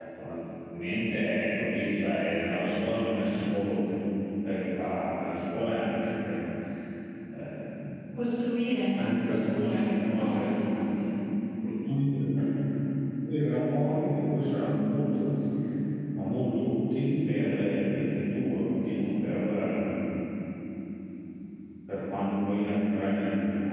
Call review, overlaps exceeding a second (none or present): present